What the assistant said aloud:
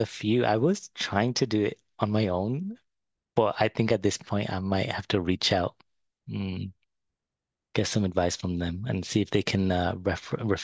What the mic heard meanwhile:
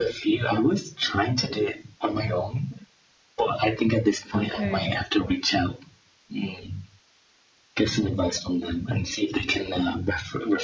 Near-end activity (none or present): present